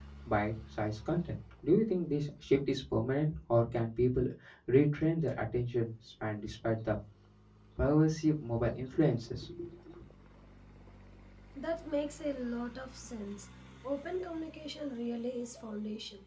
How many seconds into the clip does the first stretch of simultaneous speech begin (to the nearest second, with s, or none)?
none